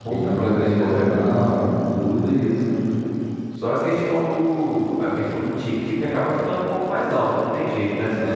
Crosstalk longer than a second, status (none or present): present